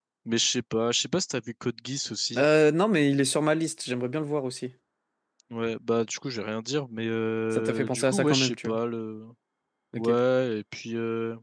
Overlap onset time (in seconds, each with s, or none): 7.5 s